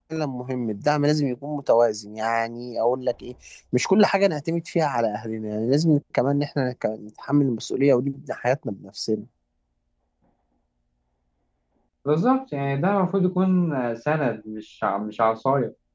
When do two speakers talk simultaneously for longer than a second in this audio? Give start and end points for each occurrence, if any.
none

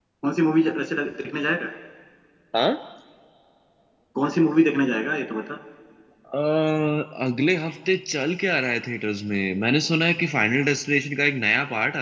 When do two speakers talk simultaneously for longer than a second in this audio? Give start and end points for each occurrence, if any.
none

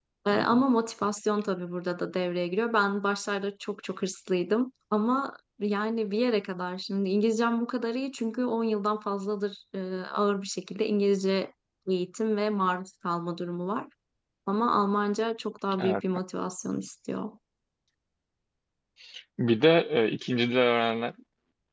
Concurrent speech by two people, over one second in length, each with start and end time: none

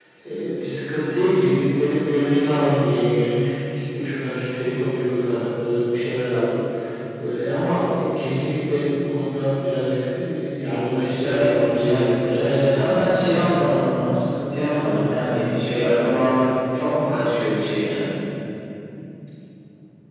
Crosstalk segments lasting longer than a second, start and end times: 11.0-13.4

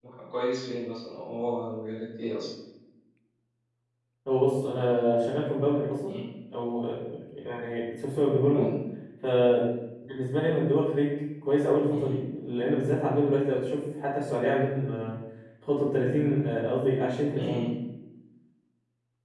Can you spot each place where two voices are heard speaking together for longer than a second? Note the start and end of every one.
none

